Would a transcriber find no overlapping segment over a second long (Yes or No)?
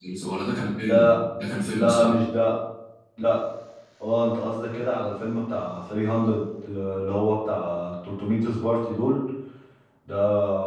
Yes